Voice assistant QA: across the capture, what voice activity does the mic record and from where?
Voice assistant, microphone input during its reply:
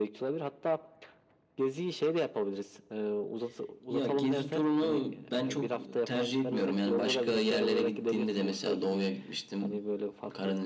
echo only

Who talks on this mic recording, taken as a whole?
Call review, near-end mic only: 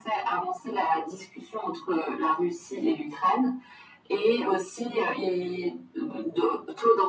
echo only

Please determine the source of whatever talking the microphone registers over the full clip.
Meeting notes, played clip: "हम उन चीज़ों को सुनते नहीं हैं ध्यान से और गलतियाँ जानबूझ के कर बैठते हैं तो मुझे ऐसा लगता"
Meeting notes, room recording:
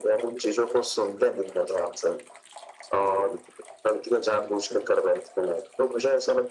echo only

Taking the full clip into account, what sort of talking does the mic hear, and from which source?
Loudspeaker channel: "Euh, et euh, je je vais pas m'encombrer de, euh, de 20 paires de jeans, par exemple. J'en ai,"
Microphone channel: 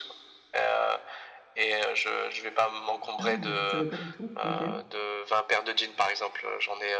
both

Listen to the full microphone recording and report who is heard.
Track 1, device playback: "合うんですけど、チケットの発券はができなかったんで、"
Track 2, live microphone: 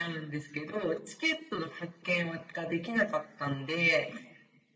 echo only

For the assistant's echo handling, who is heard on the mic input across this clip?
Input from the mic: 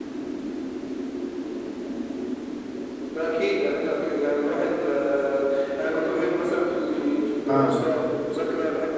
both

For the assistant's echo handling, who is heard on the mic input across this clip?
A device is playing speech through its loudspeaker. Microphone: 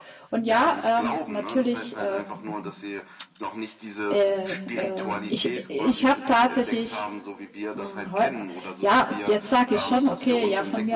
both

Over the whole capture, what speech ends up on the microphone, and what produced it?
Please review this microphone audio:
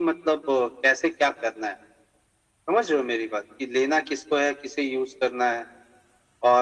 echo only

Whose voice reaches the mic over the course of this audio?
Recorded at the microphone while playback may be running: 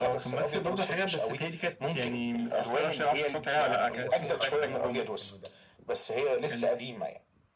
both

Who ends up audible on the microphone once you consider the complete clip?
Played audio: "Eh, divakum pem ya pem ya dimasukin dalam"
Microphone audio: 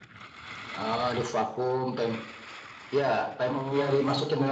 both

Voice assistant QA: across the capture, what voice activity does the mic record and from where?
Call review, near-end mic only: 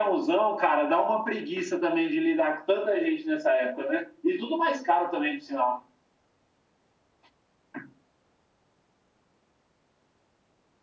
echo only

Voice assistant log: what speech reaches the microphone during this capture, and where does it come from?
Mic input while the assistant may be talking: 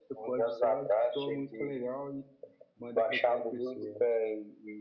both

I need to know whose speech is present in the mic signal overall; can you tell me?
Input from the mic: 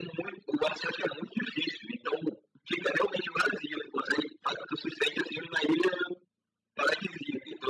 echo only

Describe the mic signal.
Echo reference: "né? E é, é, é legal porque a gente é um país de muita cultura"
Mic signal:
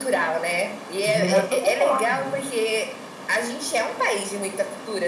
both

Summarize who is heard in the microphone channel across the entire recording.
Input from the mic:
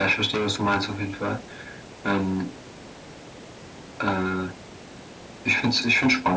echo only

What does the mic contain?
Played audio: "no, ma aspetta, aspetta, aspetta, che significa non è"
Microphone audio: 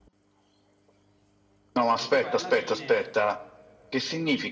both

